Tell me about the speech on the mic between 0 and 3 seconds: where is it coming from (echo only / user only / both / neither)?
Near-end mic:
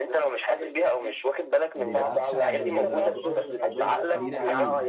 both